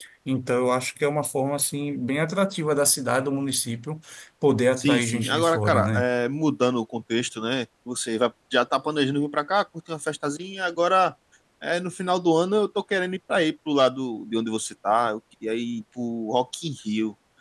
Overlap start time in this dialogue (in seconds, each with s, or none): 4.8 s